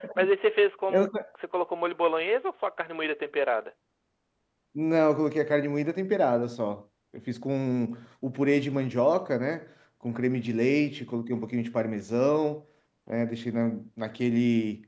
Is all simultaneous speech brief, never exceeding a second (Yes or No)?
Yes